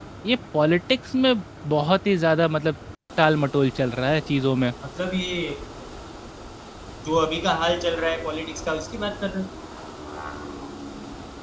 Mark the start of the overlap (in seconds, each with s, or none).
none